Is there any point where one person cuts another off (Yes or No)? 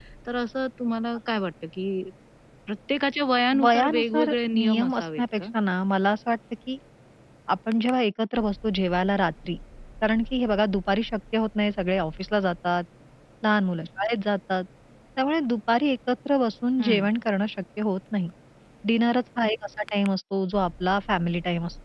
Yes